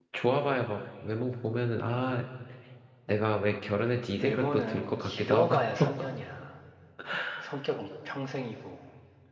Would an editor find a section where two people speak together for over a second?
Yes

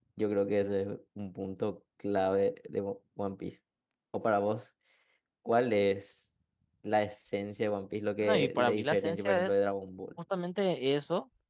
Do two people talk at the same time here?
Yes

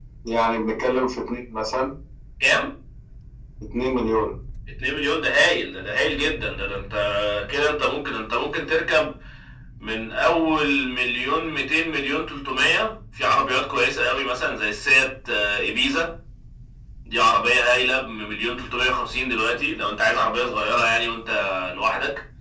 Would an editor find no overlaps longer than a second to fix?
Yes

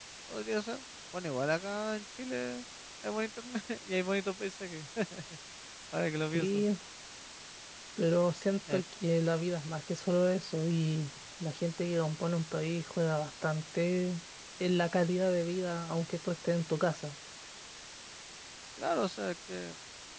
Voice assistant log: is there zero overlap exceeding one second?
Yes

